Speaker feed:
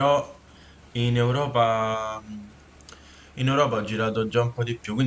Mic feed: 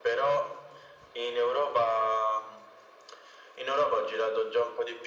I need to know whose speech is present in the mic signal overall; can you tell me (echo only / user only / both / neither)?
echo only